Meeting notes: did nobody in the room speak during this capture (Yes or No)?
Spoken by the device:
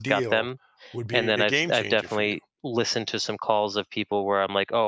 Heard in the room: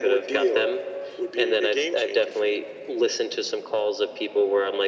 Yes